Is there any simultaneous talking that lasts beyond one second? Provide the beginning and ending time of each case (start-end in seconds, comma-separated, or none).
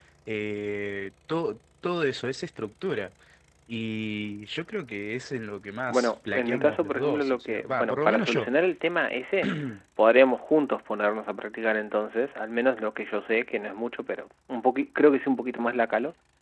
5.9-8.5